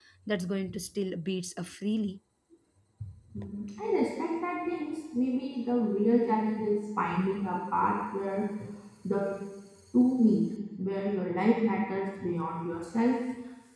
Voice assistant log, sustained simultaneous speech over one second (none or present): none